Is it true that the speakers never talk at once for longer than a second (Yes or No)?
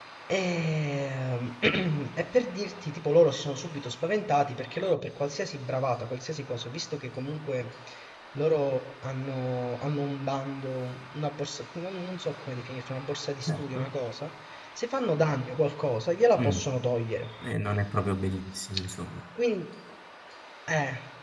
Yes